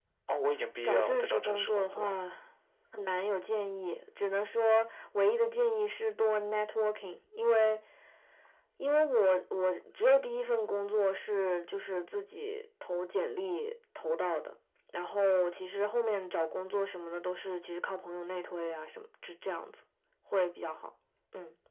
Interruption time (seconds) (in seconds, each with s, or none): 0.8 s